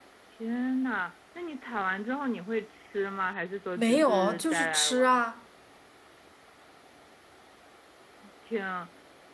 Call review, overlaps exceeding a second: present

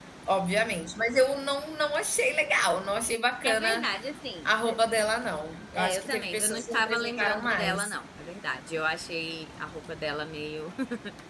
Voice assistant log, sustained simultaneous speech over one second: present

